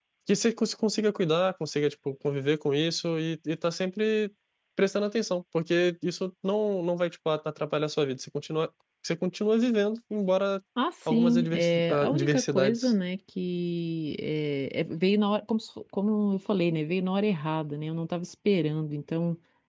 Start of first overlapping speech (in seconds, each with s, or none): 11.1 s